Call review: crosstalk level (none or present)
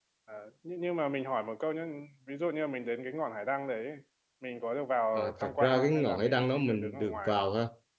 present